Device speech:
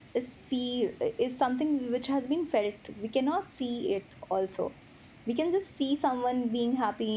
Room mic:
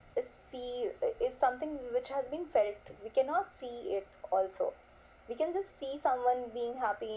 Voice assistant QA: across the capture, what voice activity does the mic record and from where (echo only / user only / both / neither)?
echo only